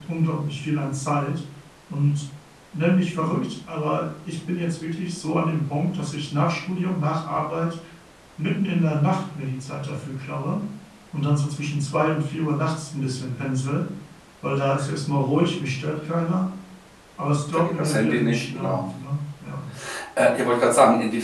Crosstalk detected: Yes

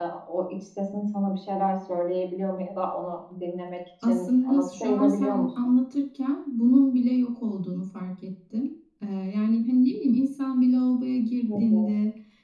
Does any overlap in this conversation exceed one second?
Yes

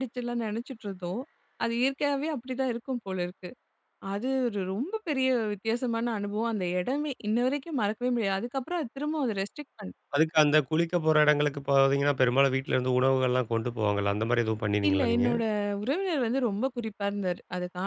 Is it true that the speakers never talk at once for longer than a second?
Yes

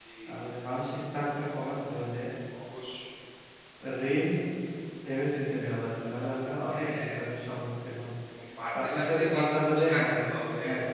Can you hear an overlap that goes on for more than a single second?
Yes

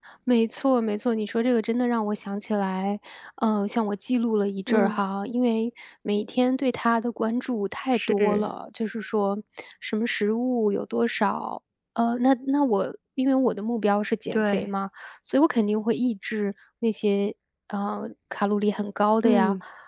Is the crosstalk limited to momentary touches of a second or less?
Yes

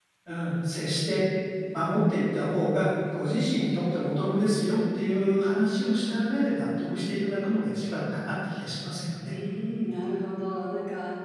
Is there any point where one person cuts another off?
No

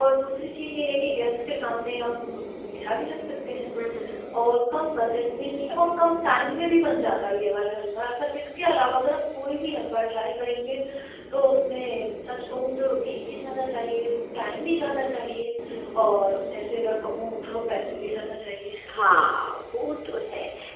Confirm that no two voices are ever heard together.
Yes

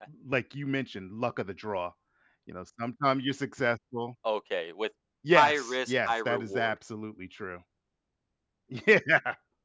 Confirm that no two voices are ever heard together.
No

